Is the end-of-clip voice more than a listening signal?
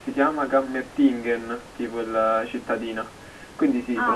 No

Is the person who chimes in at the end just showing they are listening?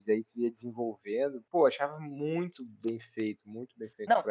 No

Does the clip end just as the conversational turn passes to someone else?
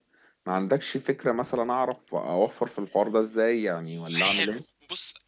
Yes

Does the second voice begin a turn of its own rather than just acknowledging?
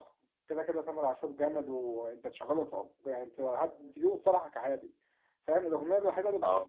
No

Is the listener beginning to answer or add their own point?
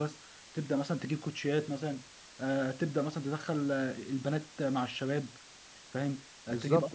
No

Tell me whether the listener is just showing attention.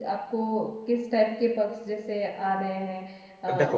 Yes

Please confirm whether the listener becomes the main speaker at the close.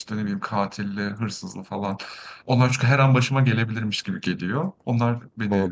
Yes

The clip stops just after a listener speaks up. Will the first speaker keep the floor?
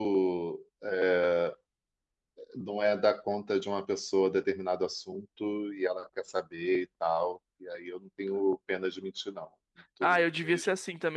No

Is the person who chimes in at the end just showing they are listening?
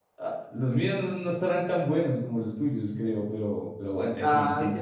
No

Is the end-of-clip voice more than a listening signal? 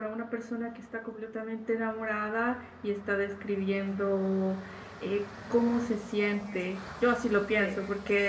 No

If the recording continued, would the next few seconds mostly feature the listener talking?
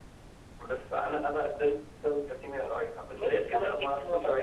Yes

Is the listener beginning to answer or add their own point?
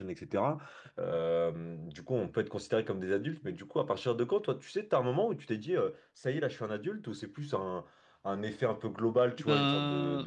No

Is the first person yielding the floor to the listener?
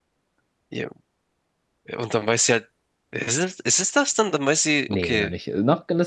Yes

